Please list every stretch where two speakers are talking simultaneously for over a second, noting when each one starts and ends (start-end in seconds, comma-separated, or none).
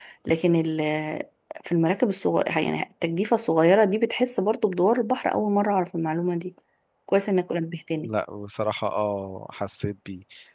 none